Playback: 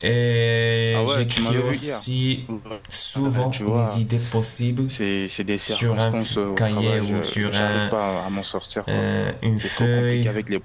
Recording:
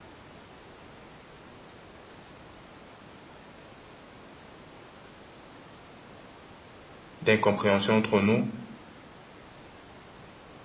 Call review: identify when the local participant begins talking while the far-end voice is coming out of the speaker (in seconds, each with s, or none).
7.2 s